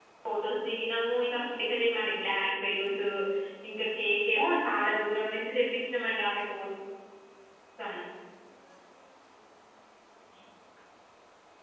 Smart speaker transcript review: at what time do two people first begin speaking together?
none

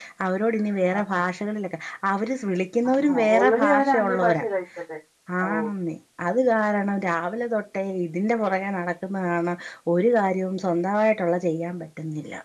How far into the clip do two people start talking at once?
3.0 s

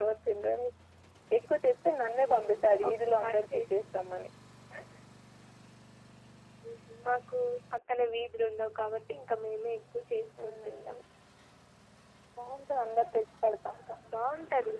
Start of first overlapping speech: 2.2 s

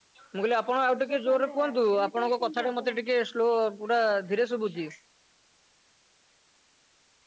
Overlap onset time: 1.1 s

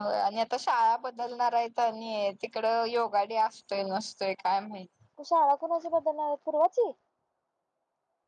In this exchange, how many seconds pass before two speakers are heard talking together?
none

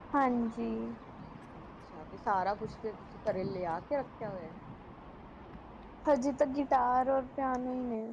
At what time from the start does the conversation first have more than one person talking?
none

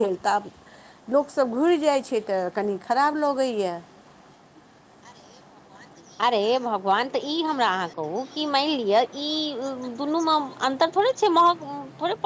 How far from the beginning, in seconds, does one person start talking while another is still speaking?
none

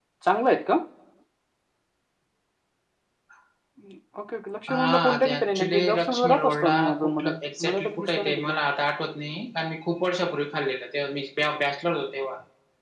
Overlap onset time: 4.7 s

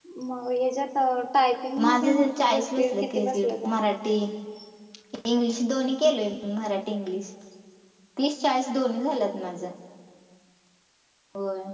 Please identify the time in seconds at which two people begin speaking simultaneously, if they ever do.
1.8 s

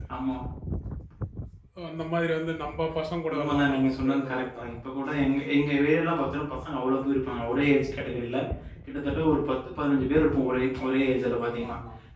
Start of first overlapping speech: 3.3 s

